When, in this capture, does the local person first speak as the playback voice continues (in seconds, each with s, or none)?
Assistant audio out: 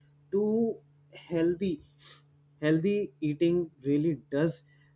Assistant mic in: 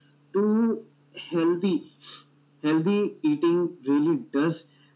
none